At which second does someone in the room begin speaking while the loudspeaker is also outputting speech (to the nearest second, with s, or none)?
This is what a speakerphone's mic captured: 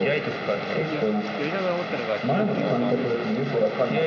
1 s